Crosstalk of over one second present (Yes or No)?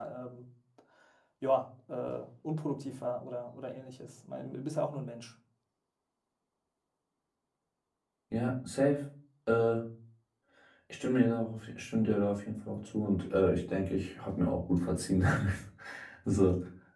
No